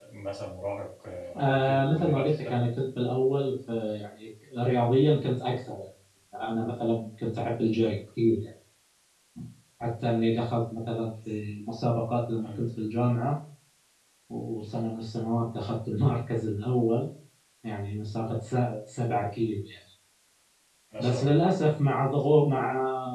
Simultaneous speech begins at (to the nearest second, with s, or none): 1 s